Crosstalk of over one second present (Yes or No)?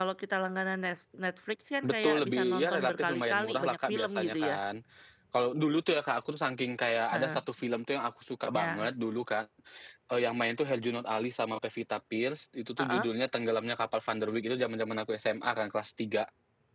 Yes